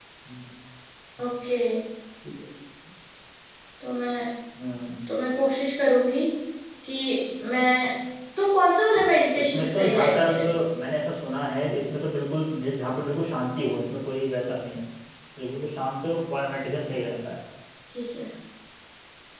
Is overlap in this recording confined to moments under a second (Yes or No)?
No